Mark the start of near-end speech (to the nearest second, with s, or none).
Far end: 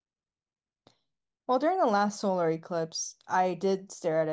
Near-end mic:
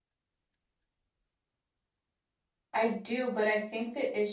3 s